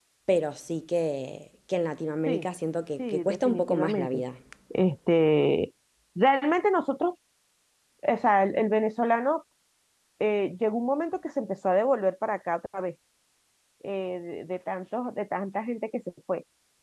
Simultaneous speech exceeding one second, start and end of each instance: 3.0-4.2

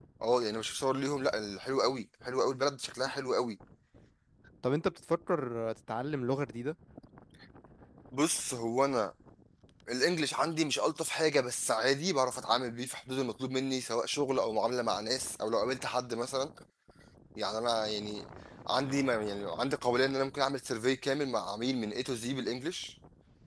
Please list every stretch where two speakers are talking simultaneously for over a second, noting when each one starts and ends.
none

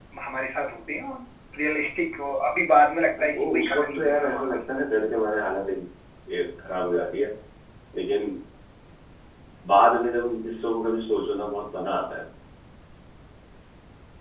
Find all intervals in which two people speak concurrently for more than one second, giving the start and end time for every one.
3.2-4.6

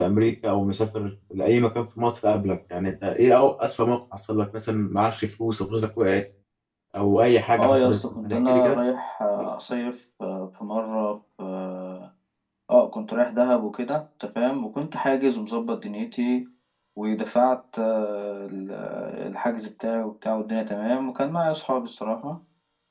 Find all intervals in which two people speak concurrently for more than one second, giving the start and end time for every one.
7.5-8.7

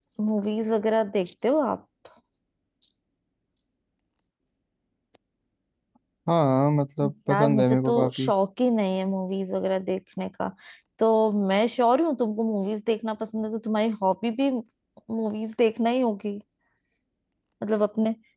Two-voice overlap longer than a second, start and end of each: 7.0-8.3

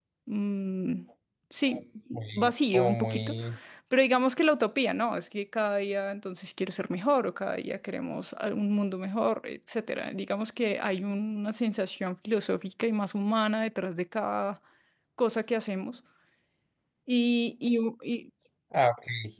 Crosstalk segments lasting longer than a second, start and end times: 2.1-3.3

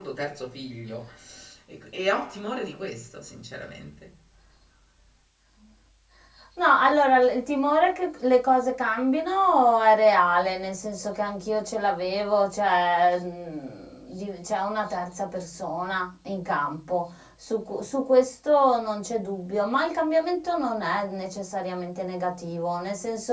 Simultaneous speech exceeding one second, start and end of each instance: none

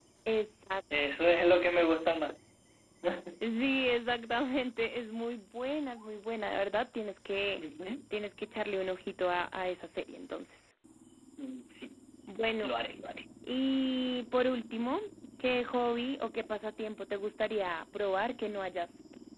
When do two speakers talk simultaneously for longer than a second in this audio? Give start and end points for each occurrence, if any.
none

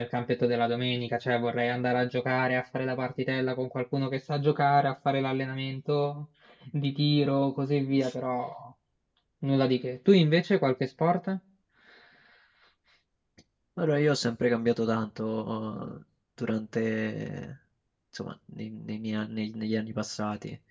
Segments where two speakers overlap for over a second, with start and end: none

